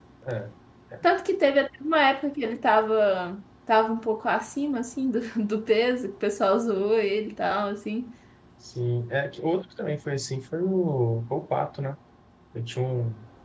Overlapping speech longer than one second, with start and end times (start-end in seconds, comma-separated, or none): none